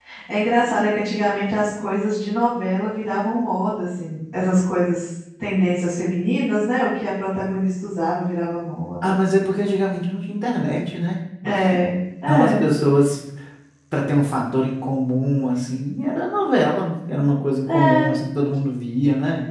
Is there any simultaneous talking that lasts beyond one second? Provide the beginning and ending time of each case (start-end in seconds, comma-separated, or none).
none